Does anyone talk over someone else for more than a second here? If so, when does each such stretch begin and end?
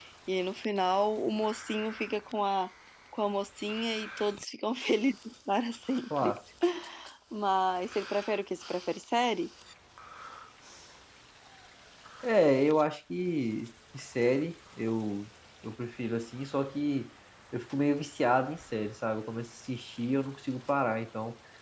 none

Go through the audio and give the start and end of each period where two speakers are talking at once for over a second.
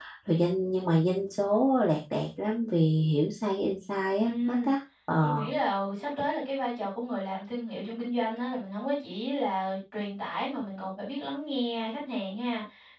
none

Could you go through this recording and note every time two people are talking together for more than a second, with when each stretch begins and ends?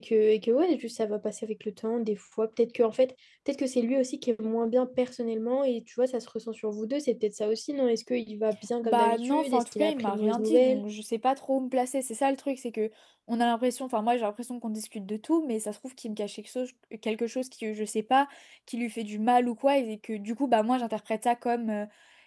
8.8-10.8

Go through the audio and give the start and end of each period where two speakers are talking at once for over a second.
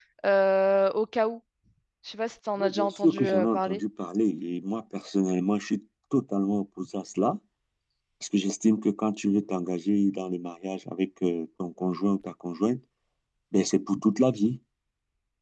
2.6-3.8

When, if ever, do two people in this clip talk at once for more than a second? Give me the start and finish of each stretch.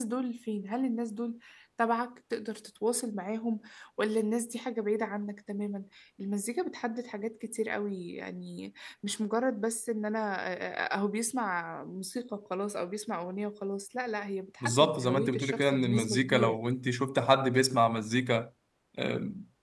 14.6-16.6

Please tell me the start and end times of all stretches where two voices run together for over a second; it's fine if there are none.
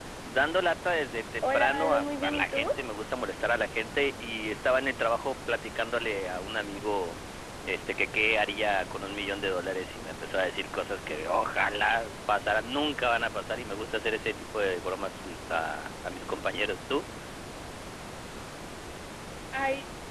1.4-2.7

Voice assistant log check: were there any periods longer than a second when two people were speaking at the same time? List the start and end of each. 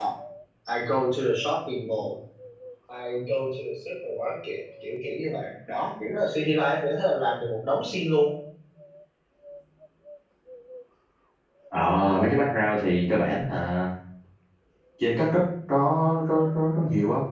none

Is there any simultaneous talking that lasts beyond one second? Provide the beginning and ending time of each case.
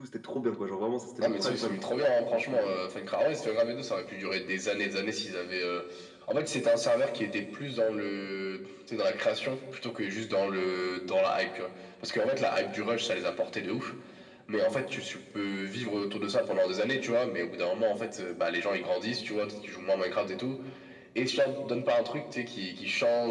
none

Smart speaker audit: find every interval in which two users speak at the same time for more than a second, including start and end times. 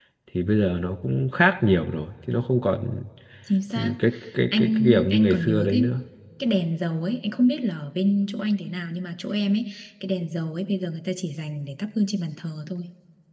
4.6-5.8

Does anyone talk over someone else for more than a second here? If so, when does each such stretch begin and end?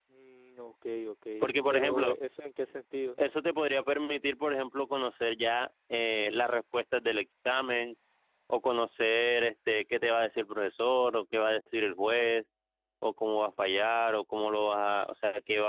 none

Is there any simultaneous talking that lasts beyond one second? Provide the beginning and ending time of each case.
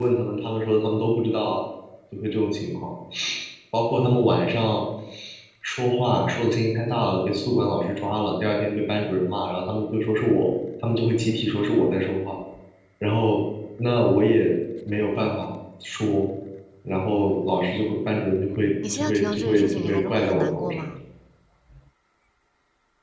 18.9-20.9

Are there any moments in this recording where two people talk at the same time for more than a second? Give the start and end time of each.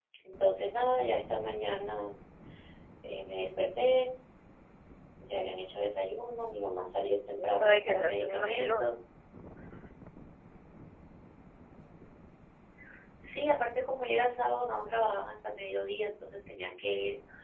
7.4-8.8

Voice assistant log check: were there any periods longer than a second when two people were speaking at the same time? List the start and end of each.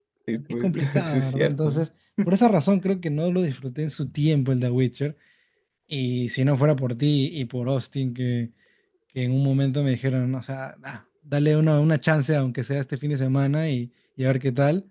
0.6-1.9

